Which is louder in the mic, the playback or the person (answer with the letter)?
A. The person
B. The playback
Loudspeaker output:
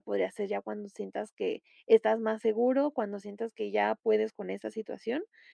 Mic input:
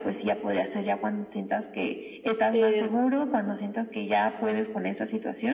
A